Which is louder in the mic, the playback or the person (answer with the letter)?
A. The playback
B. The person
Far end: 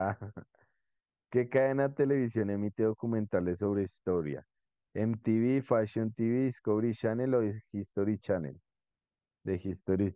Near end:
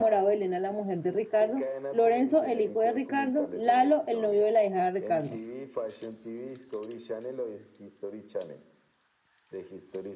B